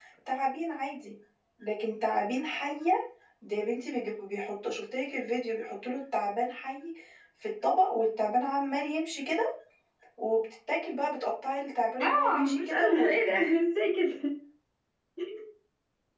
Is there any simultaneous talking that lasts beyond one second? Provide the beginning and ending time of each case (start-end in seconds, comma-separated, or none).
12.0-13.5